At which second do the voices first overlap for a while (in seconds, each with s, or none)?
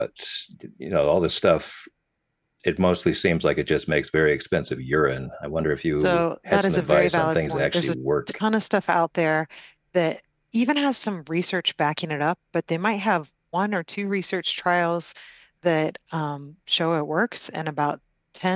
6.0 s